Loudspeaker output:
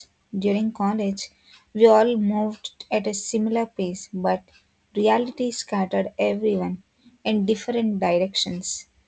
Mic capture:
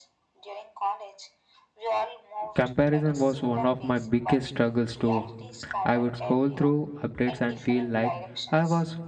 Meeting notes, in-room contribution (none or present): present